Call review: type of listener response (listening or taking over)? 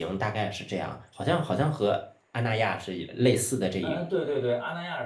taking over